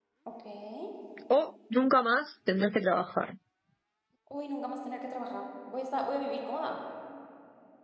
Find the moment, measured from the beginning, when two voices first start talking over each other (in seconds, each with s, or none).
none